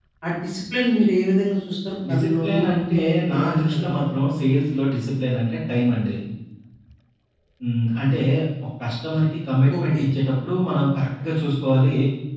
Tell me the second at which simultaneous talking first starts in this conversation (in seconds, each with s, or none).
2.1 s